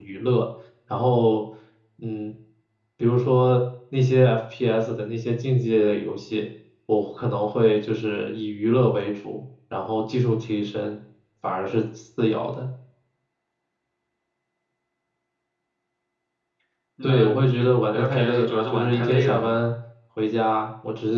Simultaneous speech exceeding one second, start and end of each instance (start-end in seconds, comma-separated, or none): 17.0-19.6